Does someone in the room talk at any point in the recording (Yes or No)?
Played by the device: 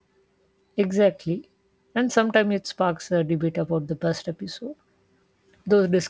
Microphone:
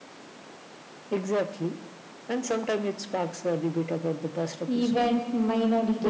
Yes